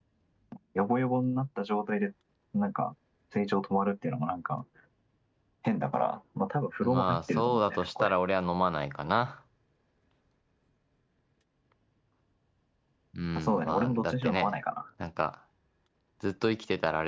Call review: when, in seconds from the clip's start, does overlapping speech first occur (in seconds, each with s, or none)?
6.8 s